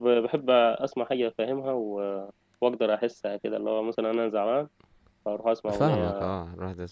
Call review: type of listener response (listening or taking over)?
taking over